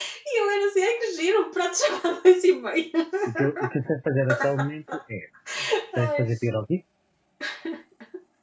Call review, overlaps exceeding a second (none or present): none